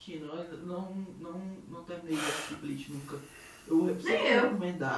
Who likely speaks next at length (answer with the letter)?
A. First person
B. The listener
A